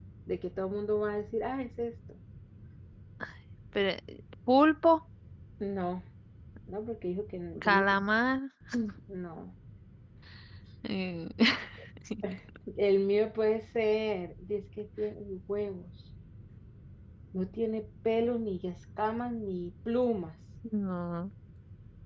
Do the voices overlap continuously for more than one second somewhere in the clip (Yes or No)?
No